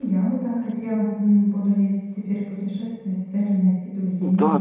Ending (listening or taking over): taking over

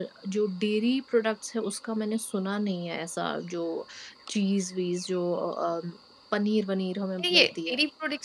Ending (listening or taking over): taking over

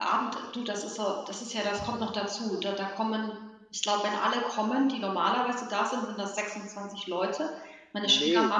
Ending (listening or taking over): listening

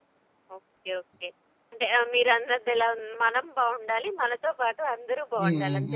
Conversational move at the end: taking over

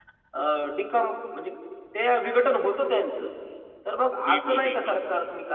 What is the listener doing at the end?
listening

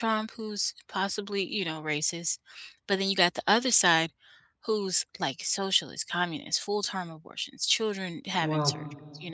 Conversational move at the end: listening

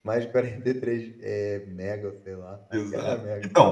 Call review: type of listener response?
taking over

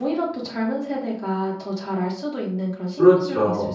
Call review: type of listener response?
taking over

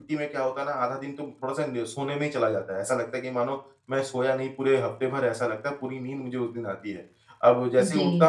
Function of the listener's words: listening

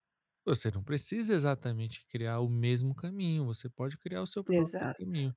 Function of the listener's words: listening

